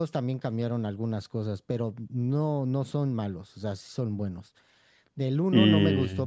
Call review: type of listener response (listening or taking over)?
listening